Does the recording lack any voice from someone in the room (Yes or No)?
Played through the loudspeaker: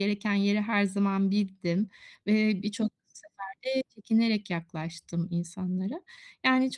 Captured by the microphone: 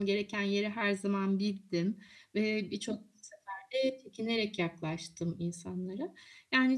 Yes